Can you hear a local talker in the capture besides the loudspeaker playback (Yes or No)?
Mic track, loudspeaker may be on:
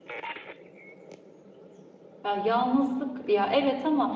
Yes